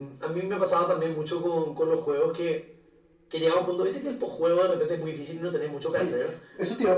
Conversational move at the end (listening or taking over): taking over